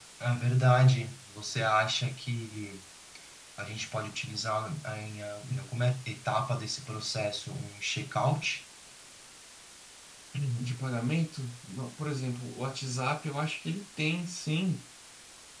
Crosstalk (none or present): none